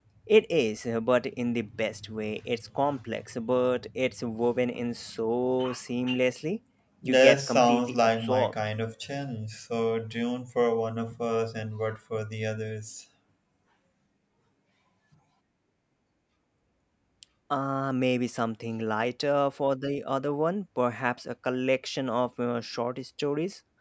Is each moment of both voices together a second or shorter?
No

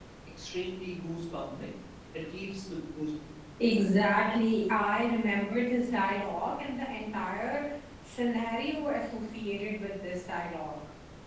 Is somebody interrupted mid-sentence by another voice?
No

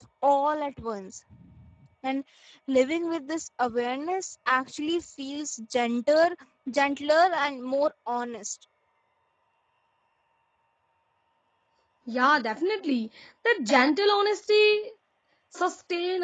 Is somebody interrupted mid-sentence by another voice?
No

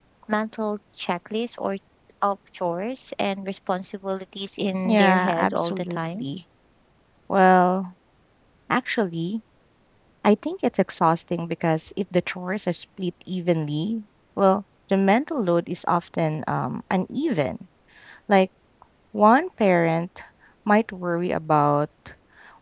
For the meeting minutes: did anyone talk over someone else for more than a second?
Yes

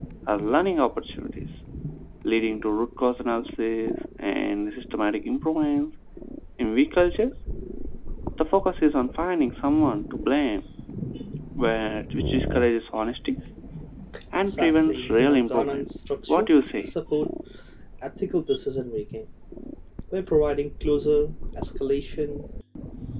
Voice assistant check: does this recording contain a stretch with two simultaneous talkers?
Yes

